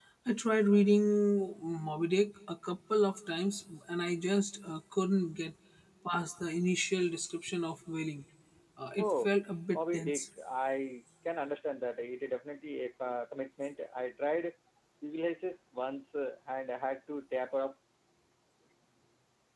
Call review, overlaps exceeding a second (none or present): none